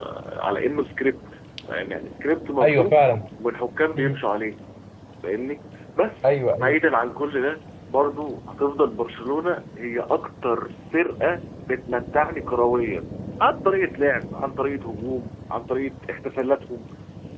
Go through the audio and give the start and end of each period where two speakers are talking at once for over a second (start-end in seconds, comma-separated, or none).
none